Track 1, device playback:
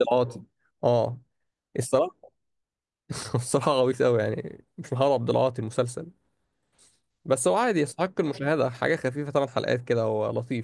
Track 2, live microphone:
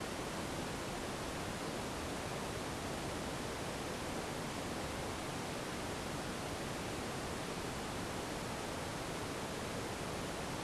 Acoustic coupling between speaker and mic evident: No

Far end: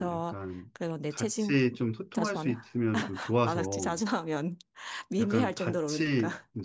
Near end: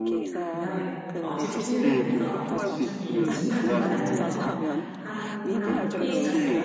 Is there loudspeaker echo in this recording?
Yes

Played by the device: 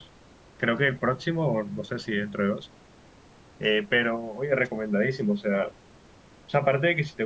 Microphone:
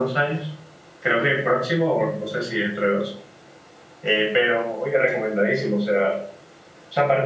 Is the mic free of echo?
No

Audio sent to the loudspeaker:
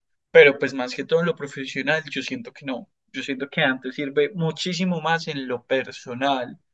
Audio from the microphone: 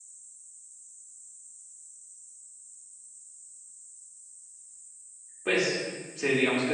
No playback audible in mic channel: Yes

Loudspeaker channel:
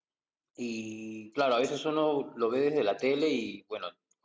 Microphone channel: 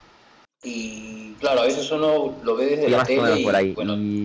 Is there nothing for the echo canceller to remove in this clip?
No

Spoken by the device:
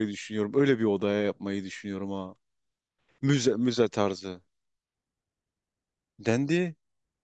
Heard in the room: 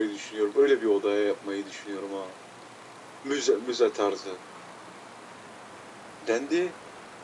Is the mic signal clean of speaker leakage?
No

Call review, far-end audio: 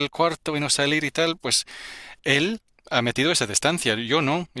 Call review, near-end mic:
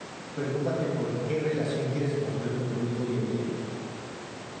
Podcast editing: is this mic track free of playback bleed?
Yes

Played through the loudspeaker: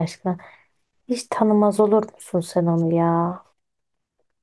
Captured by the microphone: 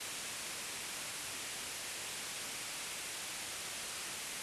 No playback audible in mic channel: Yes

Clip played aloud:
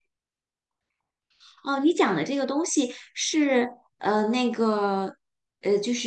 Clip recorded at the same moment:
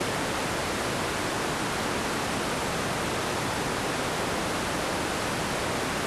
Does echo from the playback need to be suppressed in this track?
No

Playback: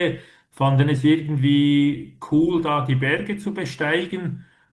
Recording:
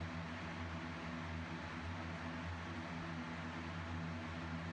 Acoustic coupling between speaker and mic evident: No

